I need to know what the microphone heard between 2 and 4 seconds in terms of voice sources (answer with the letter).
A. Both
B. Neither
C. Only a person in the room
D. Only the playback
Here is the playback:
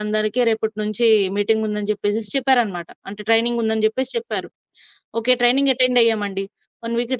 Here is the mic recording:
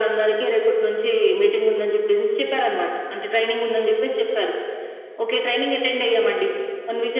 D